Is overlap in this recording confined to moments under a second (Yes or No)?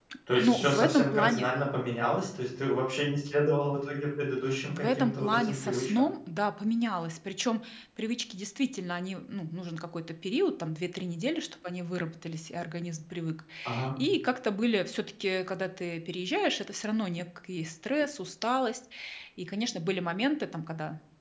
No